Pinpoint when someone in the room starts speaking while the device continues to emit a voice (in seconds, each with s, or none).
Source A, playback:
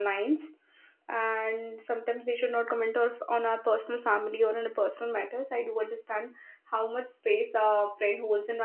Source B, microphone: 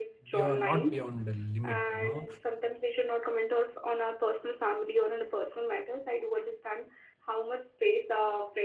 0.3 s